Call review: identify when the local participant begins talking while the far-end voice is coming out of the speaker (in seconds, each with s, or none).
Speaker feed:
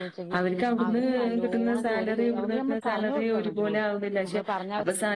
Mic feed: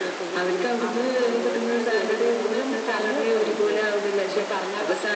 none